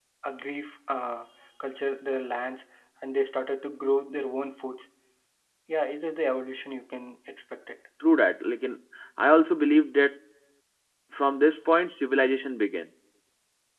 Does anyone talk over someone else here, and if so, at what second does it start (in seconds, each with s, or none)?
none